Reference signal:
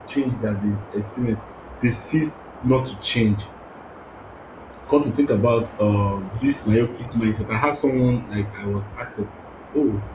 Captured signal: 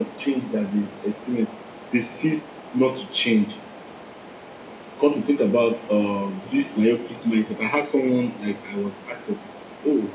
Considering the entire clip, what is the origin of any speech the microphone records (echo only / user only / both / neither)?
echo only